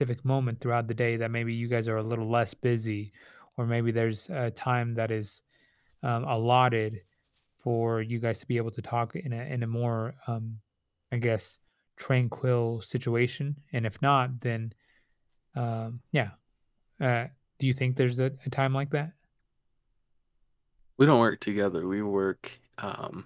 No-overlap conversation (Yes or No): Yes